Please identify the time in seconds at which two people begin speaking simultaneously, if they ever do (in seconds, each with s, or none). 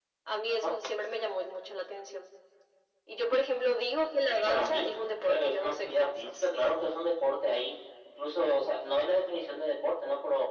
4.3 s